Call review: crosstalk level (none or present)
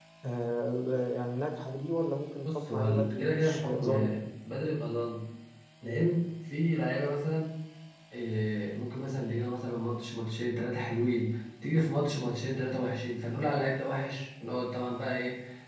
present